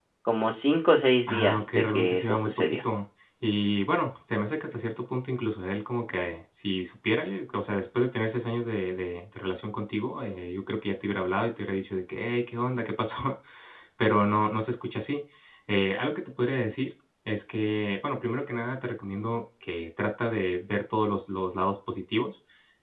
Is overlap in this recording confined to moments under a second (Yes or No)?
No